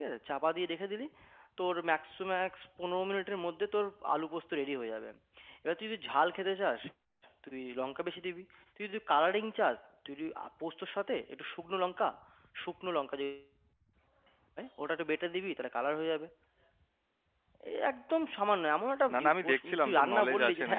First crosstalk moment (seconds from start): 19.1 s

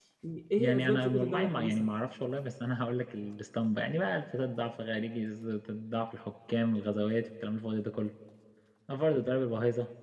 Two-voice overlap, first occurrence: 0.6 s

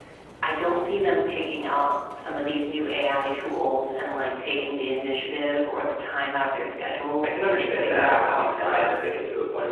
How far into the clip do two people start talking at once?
7.2 s

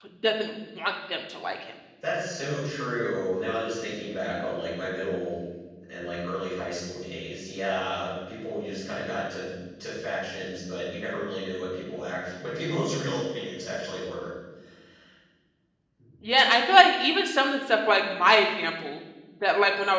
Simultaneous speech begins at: none

